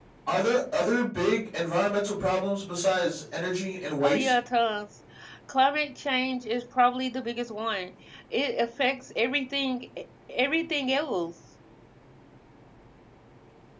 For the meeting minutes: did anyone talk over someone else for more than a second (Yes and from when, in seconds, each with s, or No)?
No